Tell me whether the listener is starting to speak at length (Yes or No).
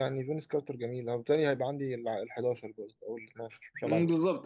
Yes